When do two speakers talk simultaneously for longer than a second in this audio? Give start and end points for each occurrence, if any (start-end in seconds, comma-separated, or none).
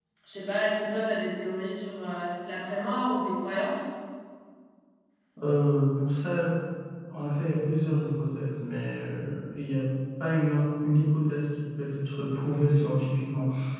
none